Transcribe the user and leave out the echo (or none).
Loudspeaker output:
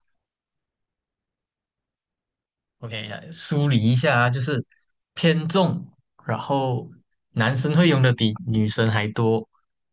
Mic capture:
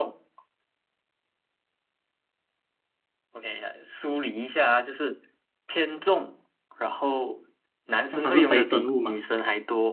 像它是非生物吗？